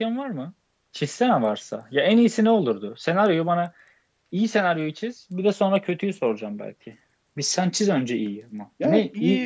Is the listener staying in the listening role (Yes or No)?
No